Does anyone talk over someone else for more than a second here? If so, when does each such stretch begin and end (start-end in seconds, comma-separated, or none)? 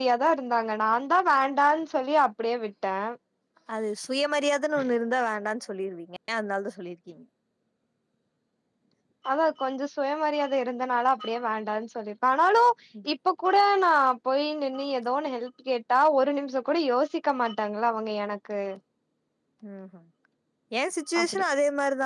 none